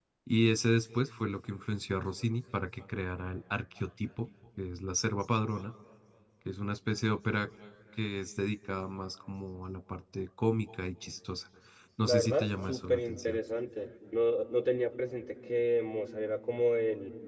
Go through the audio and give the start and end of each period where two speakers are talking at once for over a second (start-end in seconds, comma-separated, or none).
12.0-13.4